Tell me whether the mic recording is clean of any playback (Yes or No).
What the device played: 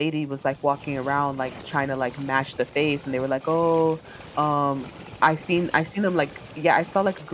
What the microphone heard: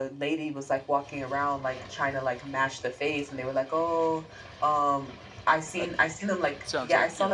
No